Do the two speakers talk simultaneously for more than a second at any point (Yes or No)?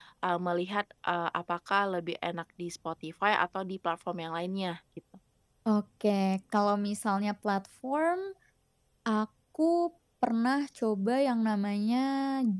No